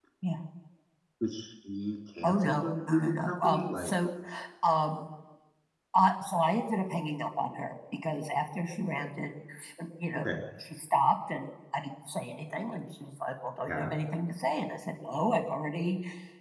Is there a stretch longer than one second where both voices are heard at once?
Yes, from 2.2 s

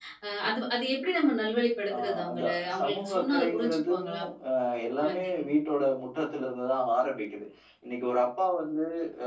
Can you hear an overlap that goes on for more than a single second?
Yes, from 1.9 s

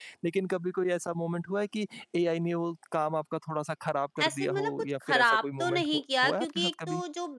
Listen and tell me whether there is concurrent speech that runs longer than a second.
Yes, from 4.2 s

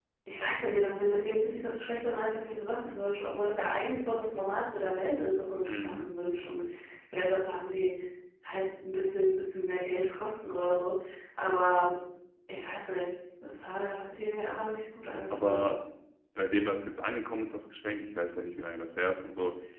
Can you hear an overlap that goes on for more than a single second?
No

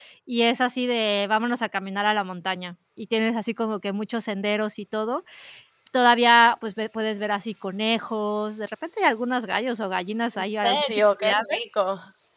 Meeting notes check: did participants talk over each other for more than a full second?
Yes, from 10.4 s

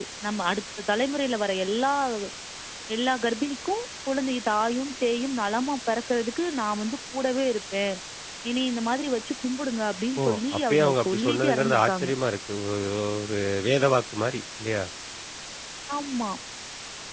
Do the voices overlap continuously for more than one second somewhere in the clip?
Yes, from 10.2 s

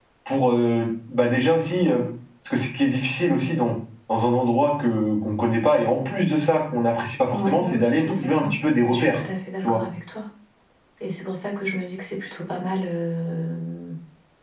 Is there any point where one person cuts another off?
Yes, from 7.3 s

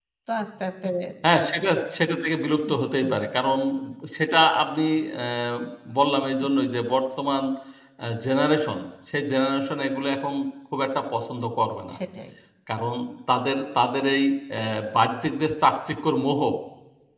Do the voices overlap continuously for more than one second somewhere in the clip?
No

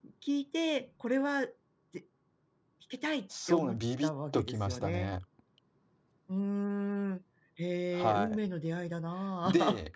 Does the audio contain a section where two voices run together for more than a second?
Yes, from 3.5 s

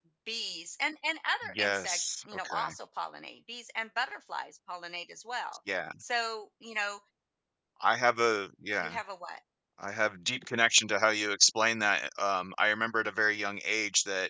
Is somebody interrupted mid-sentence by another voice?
Yes, from 1.5 s

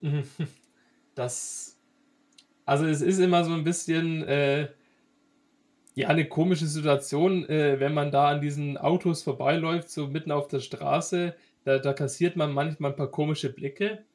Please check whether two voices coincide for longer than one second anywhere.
No

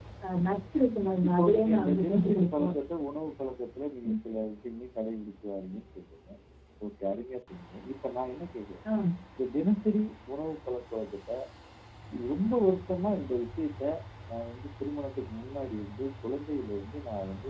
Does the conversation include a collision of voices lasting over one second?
Yes, from 1.3 s

